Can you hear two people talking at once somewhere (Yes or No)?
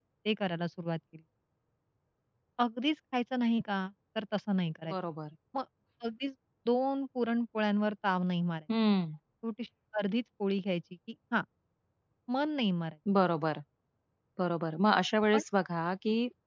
No